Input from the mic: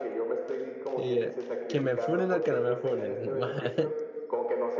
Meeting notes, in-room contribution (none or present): present